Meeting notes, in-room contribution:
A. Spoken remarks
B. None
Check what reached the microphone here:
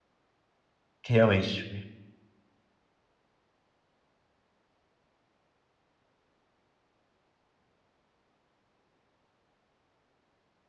A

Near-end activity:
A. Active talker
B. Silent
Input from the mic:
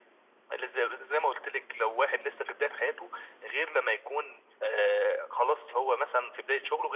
B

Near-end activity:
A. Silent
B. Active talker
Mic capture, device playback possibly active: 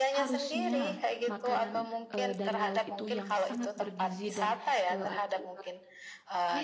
B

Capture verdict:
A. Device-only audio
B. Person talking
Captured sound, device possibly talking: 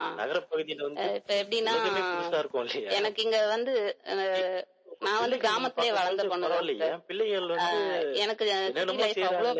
A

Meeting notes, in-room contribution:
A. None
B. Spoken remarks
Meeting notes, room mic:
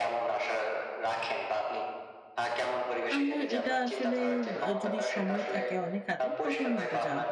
B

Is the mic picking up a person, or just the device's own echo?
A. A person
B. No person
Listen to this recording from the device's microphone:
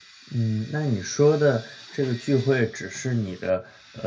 A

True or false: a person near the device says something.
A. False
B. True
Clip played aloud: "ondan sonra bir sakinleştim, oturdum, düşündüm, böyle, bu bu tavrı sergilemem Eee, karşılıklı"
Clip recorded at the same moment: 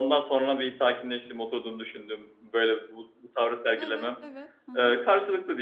B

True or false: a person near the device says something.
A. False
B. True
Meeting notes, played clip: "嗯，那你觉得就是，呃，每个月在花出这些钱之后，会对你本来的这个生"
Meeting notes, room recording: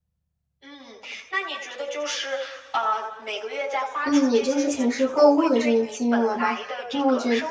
B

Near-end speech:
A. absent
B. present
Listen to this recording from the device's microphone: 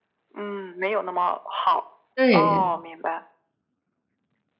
B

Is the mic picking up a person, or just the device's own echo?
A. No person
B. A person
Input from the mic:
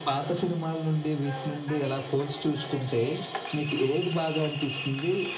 B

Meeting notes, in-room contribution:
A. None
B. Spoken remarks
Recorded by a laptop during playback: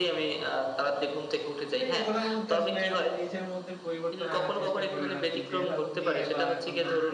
B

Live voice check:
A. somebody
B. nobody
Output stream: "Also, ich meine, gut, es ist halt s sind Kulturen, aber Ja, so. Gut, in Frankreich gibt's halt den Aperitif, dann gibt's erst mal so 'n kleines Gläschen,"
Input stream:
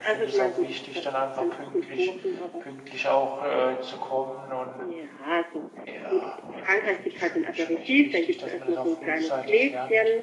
A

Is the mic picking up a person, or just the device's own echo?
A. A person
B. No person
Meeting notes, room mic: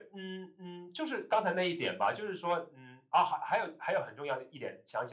B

